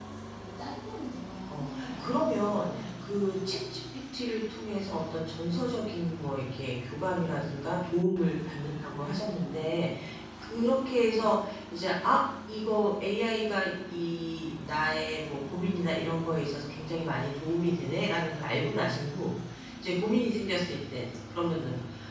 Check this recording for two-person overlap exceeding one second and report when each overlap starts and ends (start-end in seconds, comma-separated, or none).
1.5-2.9